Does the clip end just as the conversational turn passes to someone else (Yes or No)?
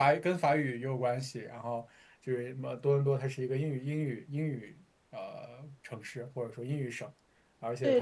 Yes